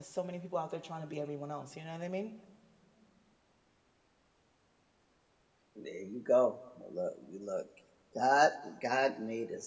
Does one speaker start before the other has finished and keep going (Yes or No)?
No